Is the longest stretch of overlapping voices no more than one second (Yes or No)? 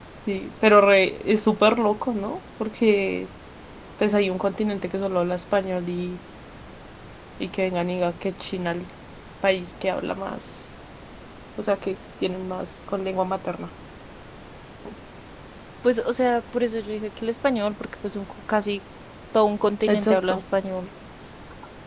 Yes